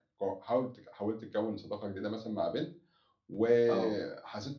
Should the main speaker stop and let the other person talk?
No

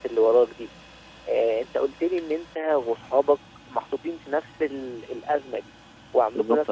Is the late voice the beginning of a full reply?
No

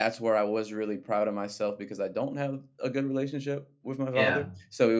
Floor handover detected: No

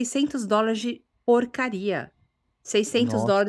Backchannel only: Yes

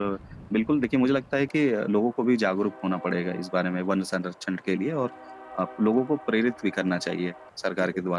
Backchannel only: No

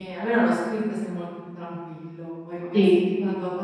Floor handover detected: No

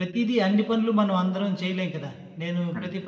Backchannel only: Yes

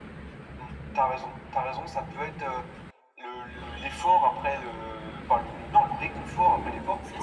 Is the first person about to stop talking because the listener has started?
No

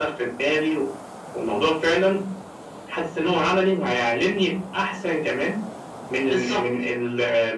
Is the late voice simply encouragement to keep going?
Yes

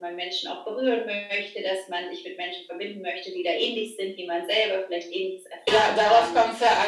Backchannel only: No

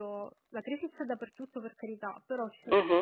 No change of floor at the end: Yes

